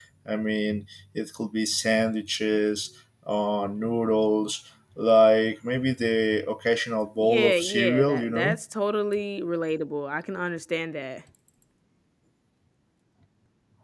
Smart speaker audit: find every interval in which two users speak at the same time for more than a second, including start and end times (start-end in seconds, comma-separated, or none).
7.2-8.6